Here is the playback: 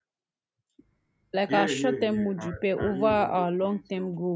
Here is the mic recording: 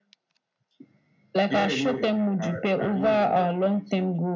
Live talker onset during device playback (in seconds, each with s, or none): none